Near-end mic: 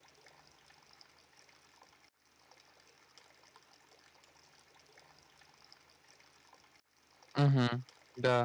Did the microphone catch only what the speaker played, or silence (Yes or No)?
No